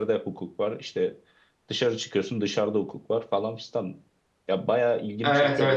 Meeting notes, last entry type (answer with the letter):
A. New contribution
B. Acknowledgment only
A